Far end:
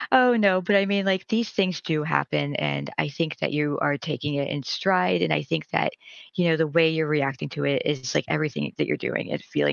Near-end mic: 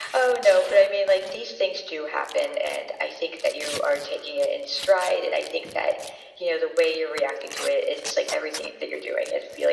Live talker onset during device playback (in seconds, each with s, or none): none